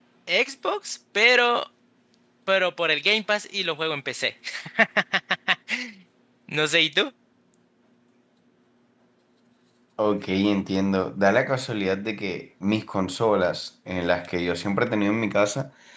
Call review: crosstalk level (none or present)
none